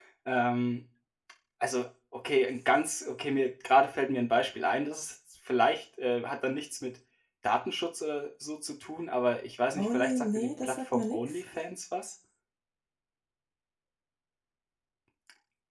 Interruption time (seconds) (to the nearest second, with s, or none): 10 s